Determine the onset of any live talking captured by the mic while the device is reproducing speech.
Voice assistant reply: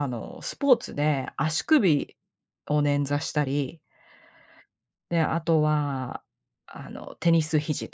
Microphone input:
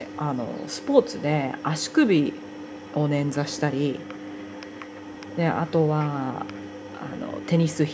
none

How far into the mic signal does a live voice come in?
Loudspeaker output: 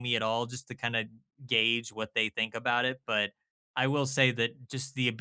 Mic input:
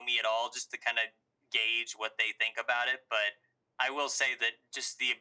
none

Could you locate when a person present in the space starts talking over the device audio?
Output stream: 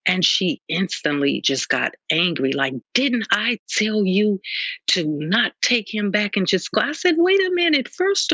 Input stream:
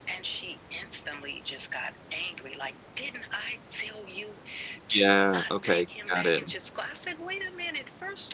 4.9 s

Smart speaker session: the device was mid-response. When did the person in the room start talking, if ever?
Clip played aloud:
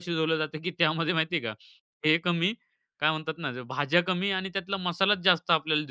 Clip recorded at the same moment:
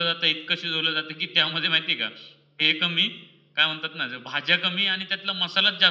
none

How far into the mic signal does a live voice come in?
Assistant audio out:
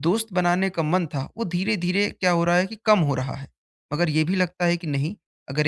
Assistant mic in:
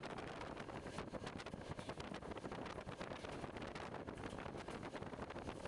none

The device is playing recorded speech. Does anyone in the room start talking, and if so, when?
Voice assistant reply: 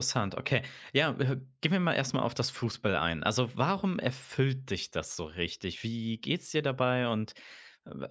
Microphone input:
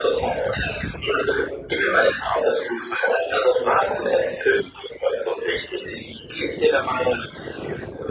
none

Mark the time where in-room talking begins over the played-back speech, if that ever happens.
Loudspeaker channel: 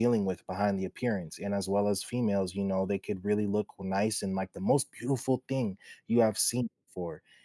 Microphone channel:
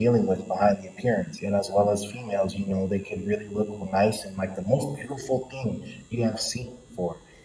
none

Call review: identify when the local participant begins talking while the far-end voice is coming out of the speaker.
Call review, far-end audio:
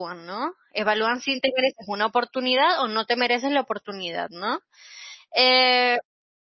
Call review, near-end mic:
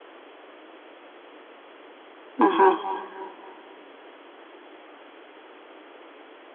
2.4 s

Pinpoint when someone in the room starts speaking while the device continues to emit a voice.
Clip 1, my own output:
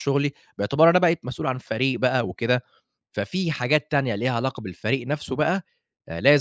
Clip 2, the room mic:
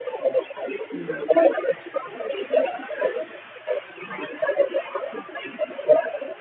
0.9 s

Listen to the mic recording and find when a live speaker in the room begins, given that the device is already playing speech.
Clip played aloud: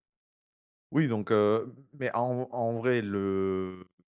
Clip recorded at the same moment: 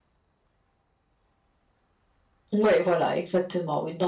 2.5 s

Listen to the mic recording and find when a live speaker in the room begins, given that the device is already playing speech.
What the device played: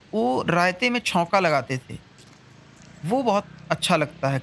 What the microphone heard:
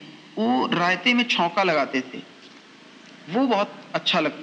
none

